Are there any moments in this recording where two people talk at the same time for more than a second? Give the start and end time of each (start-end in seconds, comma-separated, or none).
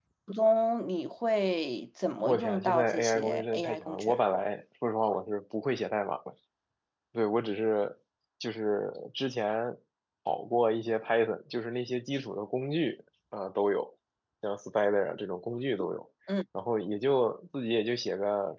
2.2-4.2